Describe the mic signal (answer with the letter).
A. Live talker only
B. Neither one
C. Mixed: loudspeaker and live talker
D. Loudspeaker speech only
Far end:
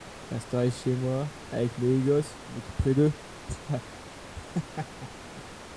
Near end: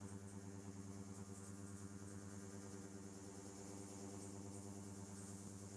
B